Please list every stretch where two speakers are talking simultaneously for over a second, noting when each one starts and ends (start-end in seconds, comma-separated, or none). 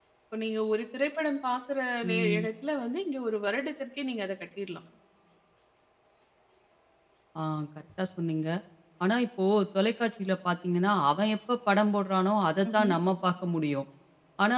none